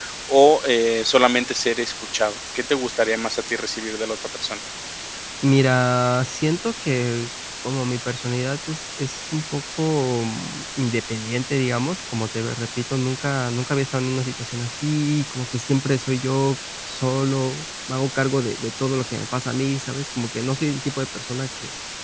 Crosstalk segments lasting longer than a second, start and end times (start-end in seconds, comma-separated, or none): none